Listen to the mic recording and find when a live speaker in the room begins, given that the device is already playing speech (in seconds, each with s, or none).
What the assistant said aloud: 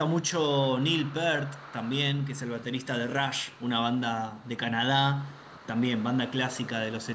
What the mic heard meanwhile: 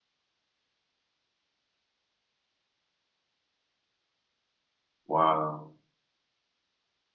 5.0 s